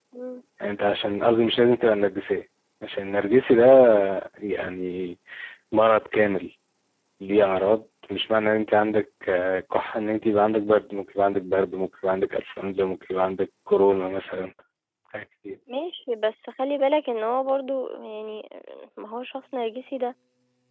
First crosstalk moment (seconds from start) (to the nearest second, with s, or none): none